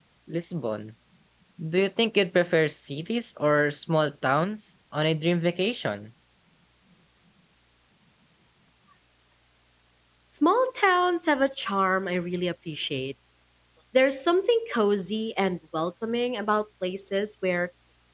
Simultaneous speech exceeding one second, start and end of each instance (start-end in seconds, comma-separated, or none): none